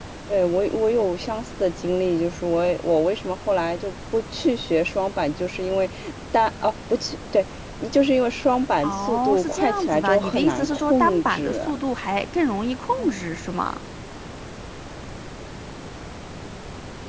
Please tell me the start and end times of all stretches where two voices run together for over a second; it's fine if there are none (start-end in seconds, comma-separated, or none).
8.8-11.6